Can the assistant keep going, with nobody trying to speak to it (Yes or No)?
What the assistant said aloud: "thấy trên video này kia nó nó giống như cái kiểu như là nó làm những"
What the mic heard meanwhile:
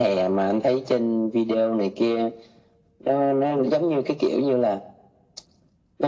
Yes